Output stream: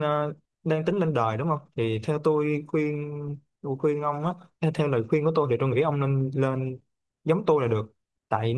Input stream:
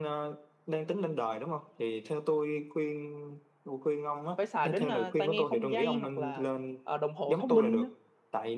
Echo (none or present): present